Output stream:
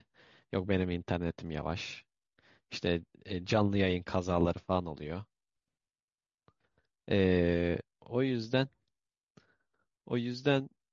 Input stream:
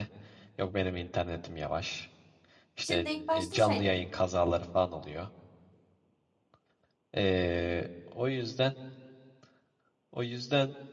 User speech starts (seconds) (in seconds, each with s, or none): 2.8 s